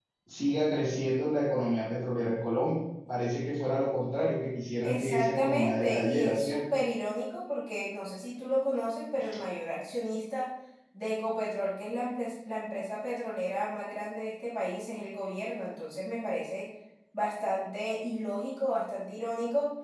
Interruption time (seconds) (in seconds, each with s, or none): 4.8 s